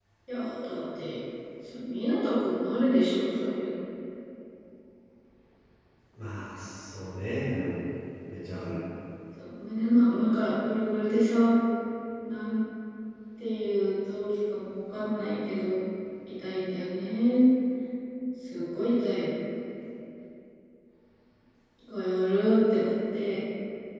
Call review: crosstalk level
none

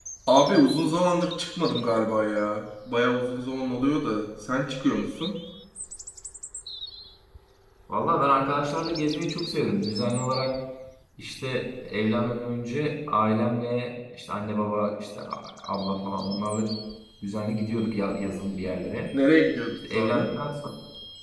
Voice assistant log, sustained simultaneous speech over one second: none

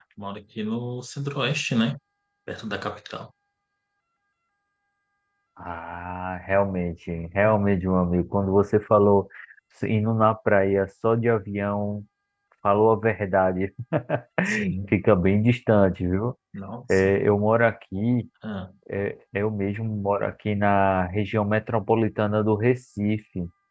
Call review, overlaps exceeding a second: none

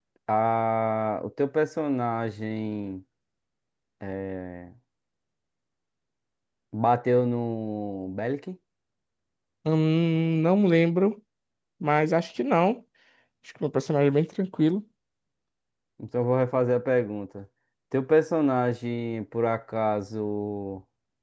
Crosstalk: none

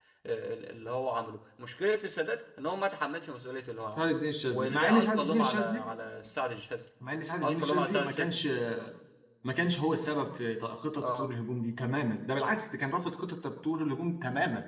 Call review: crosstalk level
present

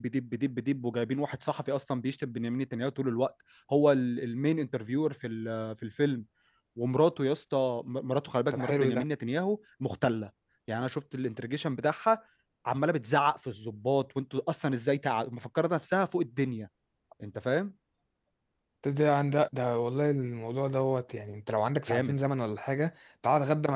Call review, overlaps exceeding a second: none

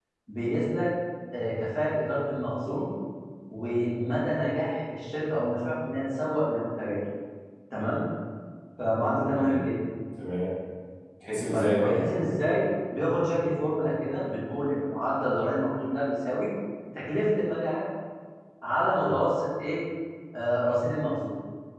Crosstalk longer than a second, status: none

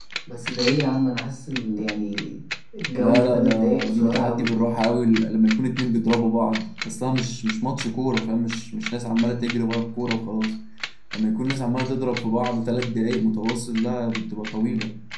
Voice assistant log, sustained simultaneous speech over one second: present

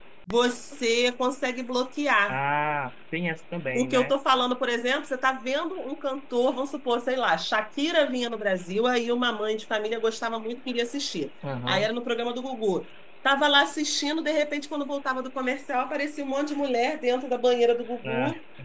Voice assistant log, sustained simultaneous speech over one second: none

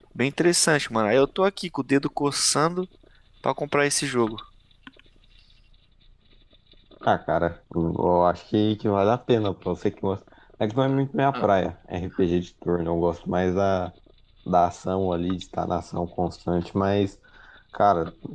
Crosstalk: none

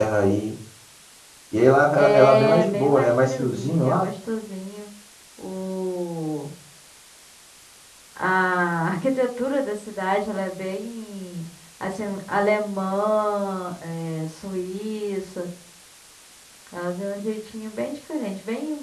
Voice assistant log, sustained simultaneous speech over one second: present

